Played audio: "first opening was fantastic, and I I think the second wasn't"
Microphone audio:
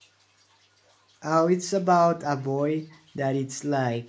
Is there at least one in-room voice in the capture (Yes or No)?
Yes